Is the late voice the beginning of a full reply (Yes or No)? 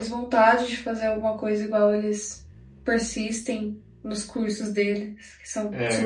Yes